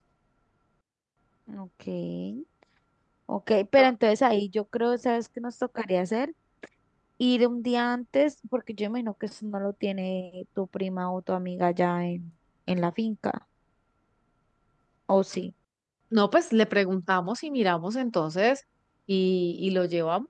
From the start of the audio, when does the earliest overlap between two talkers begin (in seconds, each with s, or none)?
none